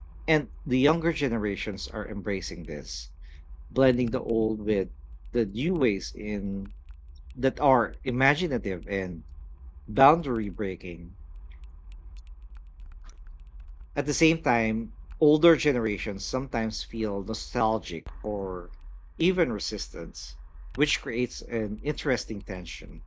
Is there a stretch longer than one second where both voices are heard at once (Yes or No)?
No